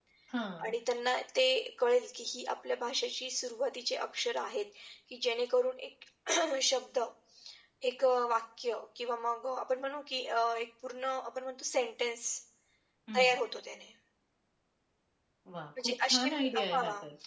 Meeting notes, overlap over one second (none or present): present